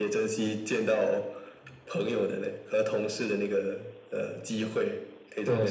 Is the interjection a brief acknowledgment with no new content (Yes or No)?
No